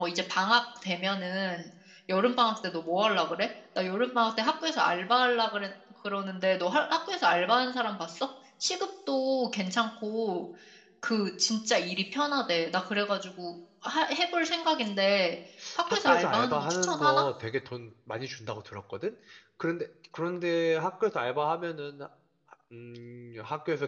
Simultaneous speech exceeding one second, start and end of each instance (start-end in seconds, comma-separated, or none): 15.9-17.2